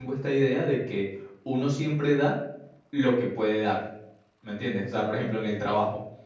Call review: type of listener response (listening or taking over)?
listening